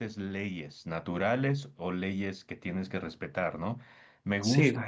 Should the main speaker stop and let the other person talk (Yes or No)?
No